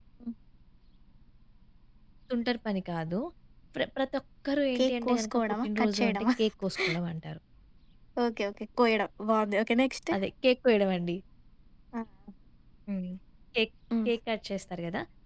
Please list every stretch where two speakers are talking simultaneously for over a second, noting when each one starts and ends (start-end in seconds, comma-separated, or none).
4.8-6.2